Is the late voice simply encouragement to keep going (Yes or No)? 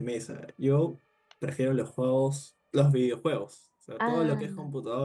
Yes